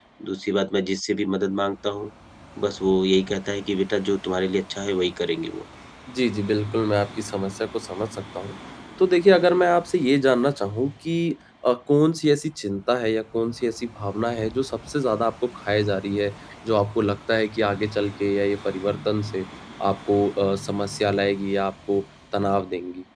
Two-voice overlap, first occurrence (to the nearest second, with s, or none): none